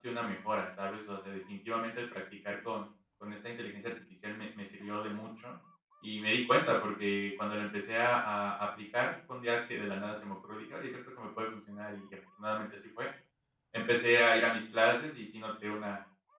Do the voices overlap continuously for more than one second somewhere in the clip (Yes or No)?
No